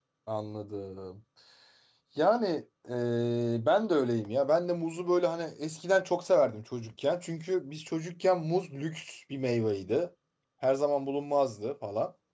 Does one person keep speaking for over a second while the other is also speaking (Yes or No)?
No